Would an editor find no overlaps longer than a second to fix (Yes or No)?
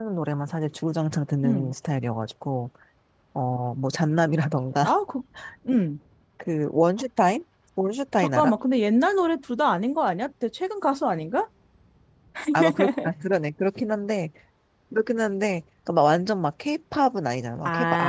Yes